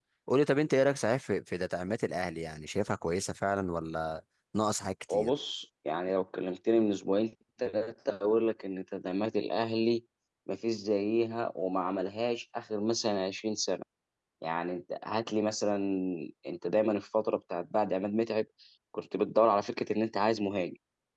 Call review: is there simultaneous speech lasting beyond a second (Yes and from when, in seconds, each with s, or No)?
No